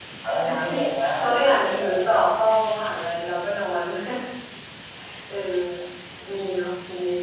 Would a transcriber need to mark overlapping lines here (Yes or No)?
Yes